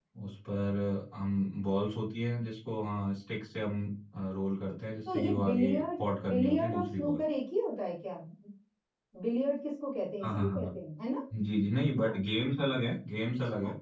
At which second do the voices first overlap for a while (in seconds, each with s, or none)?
5.1 s